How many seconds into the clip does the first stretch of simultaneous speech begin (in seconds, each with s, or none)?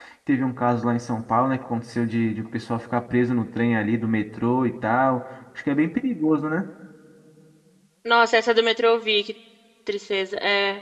none